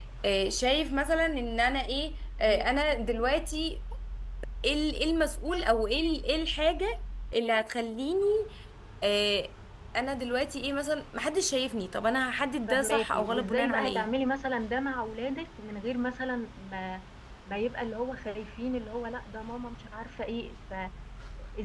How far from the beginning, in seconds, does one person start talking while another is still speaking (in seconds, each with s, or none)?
12.7 s